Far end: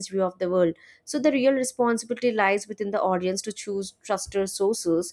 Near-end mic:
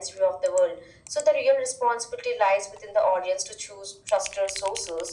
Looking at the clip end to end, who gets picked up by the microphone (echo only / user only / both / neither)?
echo only